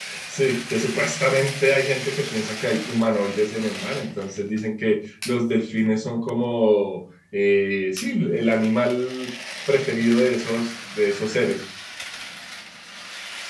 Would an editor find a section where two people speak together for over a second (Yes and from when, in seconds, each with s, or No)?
No